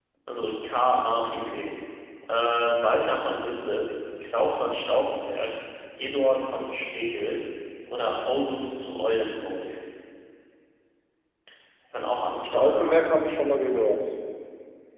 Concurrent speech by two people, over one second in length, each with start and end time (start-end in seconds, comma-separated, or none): none